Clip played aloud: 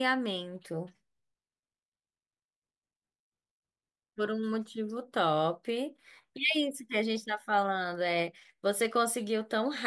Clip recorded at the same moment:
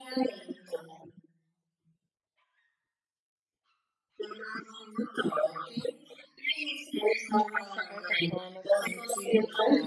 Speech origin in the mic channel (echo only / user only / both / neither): both